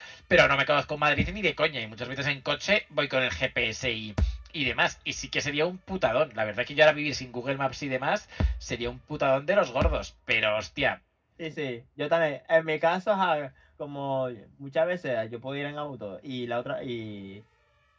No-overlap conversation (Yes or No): Yes